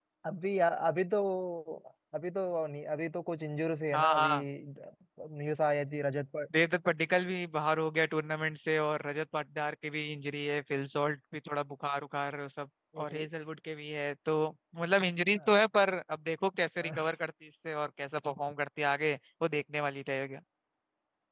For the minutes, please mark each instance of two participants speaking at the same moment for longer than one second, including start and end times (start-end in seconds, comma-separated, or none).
none